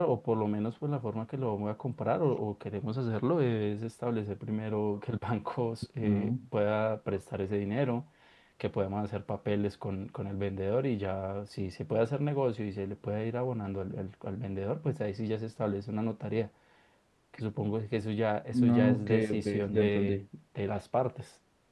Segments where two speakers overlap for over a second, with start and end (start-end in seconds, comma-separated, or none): 18.5-20.2